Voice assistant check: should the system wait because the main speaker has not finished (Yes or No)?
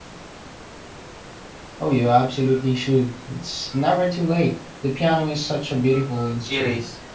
No